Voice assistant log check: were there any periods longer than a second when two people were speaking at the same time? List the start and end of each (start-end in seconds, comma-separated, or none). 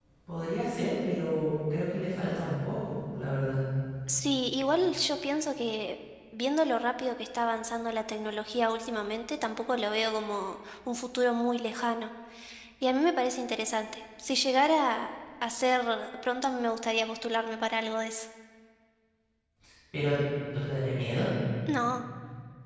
none